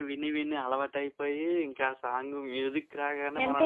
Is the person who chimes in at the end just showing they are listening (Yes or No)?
No